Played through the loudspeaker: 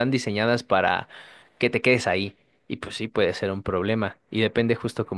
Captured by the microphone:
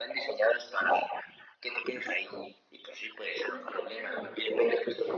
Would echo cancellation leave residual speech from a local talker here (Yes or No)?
Yes